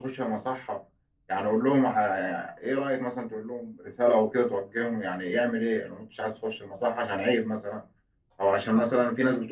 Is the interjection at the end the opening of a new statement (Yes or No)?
No